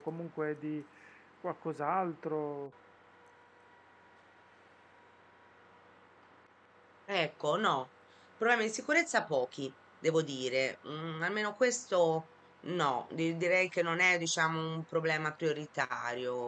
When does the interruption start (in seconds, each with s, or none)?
none